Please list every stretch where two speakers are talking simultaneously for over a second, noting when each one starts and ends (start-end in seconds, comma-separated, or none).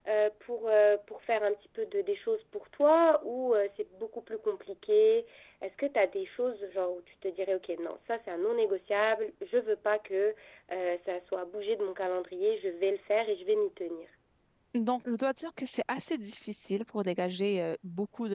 none